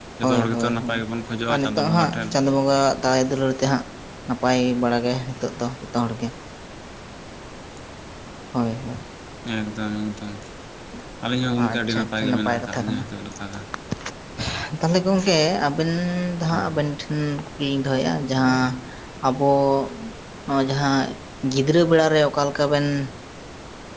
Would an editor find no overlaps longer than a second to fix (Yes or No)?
No